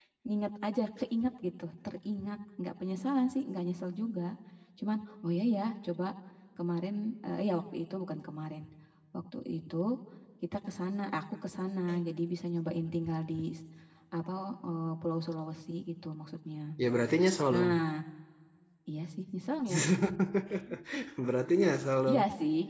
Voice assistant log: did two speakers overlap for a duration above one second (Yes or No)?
No